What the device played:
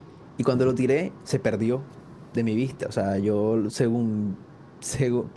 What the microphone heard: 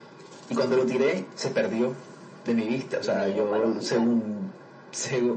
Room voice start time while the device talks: 3 s

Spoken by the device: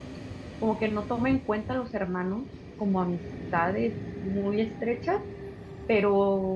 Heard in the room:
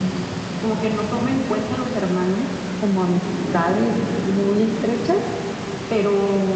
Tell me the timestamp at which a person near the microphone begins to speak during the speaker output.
none

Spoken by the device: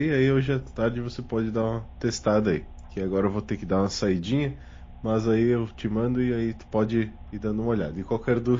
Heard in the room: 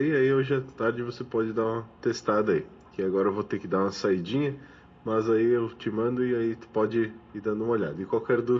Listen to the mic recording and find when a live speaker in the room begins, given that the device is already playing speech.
none

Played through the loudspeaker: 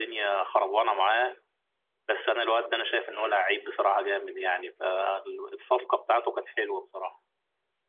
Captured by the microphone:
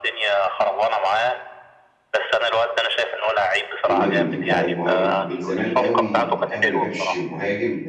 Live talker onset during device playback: 4 s

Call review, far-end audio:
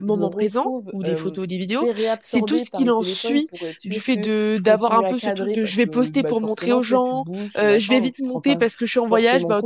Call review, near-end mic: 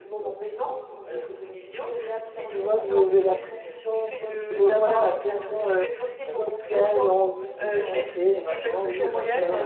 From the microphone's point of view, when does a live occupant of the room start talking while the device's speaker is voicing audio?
2 s

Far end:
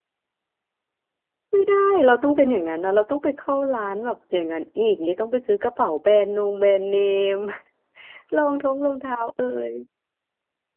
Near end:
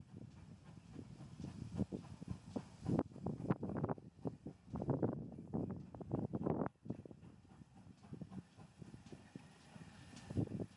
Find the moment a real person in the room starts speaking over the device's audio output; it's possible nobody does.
none

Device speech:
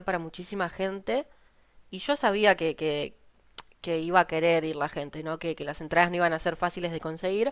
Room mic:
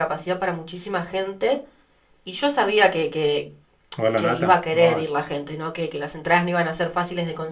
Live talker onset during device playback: 4 s

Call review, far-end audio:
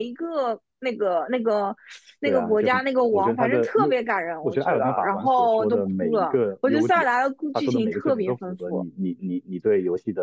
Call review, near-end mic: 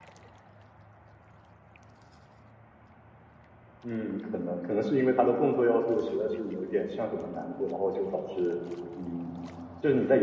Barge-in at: 4 s

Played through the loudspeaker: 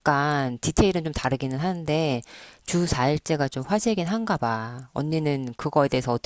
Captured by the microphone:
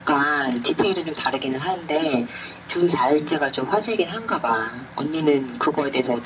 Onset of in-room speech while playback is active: none

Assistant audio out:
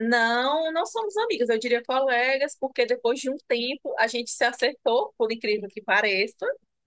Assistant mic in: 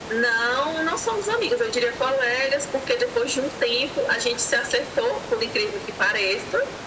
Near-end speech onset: none

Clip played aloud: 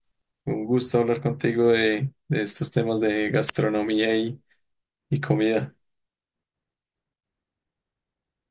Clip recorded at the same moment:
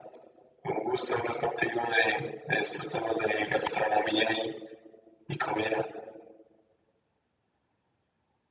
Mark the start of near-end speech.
none

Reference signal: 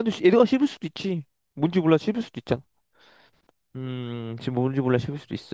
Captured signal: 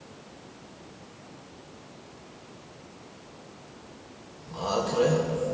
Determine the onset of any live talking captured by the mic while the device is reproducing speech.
5 s

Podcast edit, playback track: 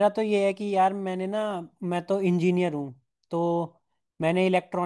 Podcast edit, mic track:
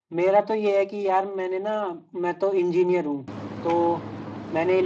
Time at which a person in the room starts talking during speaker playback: none

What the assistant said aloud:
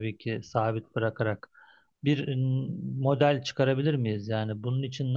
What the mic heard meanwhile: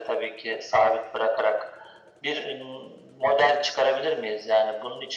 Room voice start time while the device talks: none

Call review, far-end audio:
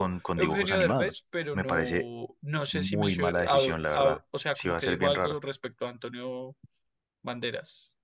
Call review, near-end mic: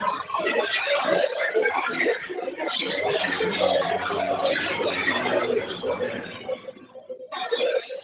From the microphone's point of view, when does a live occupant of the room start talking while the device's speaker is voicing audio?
3 s

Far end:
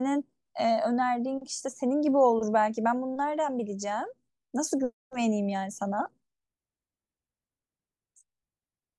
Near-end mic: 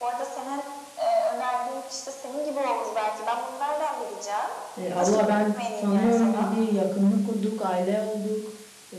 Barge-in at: 5 s

